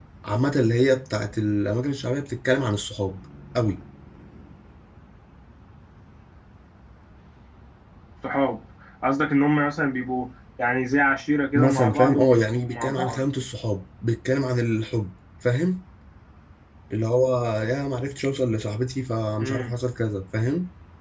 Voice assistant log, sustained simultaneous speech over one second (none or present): present